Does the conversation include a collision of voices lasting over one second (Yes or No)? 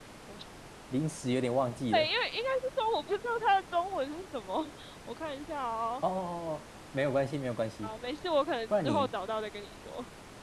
No